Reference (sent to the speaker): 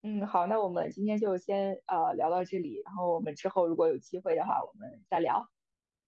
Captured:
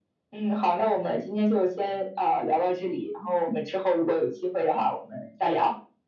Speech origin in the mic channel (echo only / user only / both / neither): echo only